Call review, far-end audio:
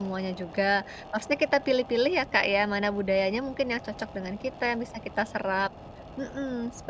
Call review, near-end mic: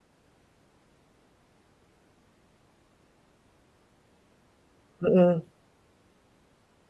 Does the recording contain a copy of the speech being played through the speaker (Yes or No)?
No